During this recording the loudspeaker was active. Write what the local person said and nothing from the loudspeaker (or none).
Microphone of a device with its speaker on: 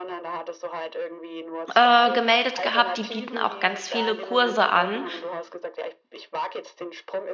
äh, gemeldet gehabt. Die bieten auch ganz viele Kurse an,